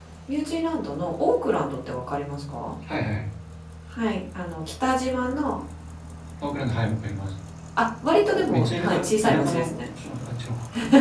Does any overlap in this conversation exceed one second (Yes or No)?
Yes